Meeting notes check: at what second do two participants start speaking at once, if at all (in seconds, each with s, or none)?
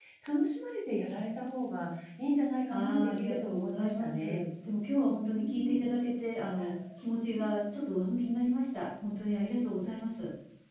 2.7 s